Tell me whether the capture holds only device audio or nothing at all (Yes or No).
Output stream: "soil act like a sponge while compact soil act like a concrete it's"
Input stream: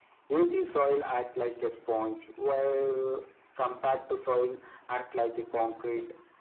Yes